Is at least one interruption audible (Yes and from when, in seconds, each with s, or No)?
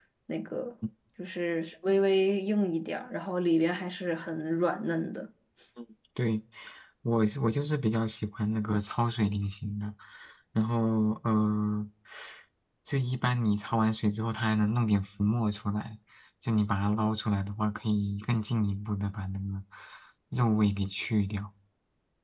No